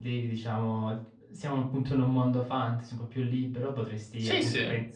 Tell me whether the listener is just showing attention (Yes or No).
Yes